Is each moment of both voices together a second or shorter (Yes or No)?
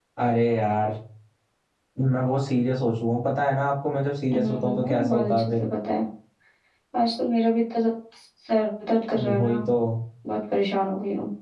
No